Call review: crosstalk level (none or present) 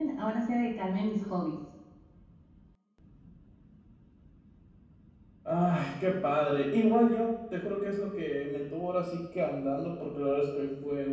none